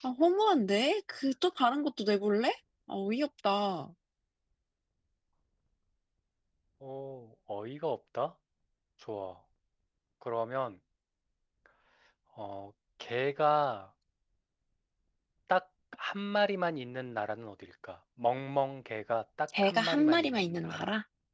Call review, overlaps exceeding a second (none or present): present